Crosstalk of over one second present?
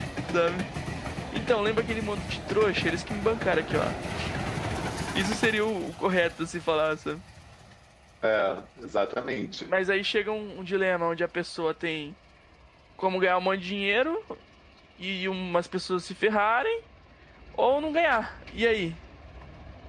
No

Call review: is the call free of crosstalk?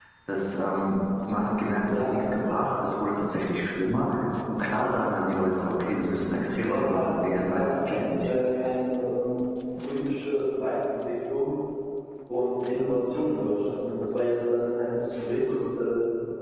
No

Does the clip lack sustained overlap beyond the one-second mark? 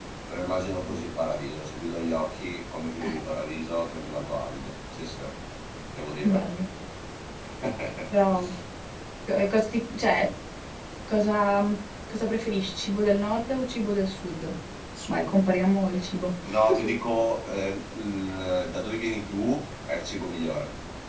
Yes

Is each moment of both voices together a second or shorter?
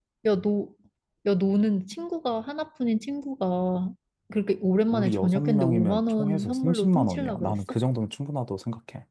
No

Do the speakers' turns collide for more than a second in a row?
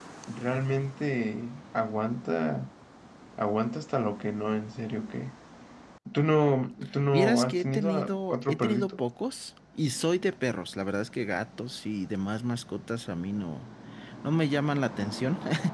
Yes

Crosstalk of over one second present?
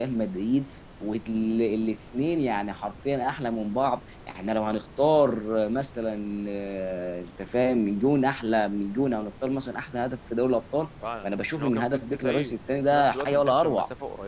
Yes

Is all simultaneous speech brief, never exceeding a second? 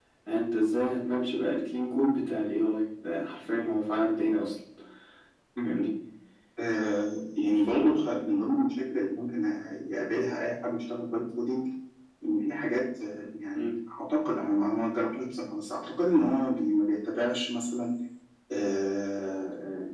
Yes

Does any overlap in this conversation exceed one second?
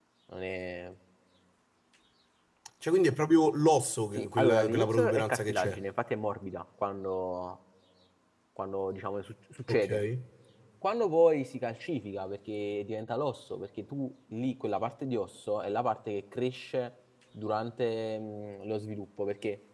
Yes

